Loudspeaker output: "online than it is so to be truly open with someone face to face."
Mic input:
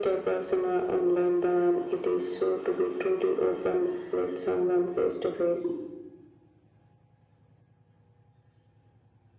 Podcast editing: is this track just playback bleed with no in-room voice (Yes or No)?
Yes